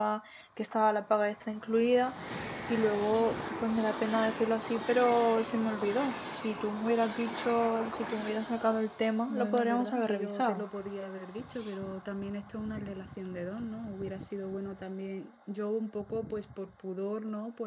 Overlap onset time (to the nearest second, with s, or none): 9 s